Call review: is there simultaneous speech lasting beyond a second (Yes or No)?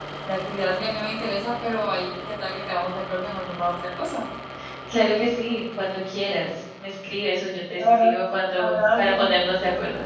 Yes